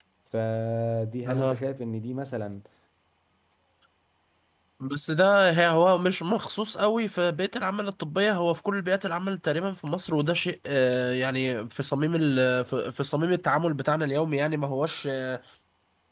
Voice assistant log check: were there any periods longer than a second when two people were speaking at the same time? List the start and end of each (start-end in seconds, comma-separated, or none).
none